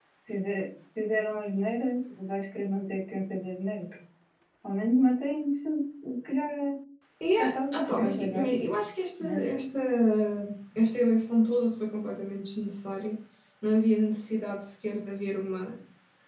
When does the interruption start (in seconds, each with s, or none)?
7.3 s